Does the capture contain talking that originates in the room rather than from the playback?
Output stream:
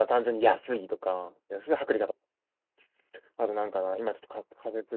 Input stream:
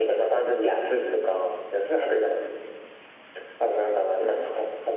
No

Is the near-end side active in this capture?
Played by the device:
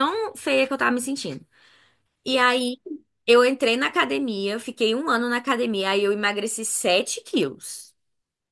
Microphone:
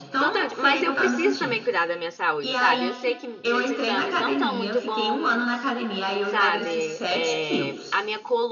Yes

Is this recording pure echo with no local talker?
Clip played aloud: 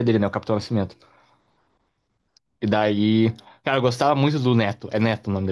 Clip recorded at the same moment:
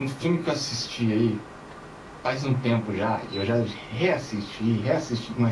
No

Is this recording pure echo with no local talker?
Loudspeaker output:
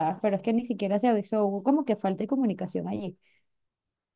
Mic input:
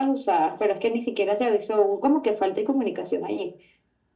Yes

